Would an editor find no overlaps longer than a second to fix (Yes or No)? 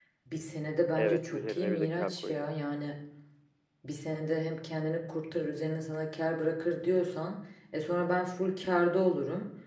No